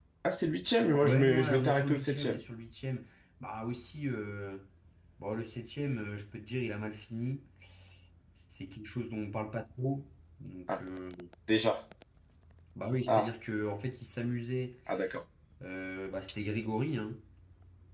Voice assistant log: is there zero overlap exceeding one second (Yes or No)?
No